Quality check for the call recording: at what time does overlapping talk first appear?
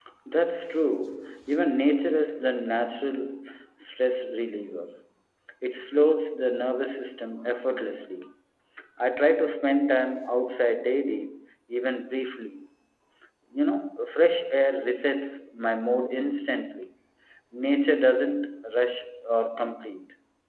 none

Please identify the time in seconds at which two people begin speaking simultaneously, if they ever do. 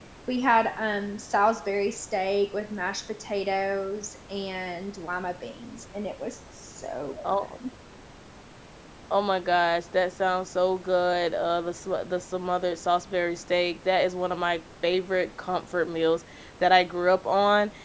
none

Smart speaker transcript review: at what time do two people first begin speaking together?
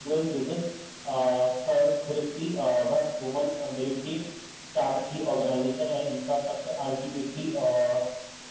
none

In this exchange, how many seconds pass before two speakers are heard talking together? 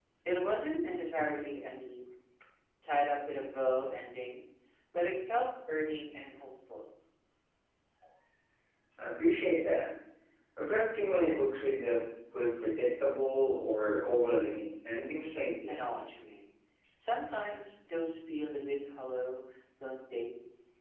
none

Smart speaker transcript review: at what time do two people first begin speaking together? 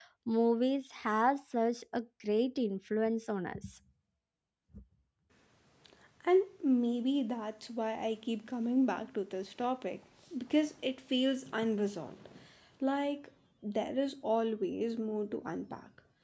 none

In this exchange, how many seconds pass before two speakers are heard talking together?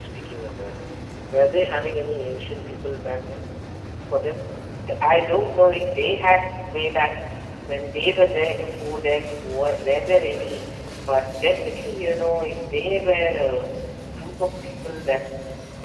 none

